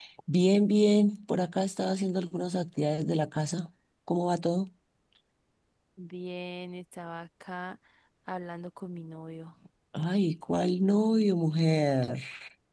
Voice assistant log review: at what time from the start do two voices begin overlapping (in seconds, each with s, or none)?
none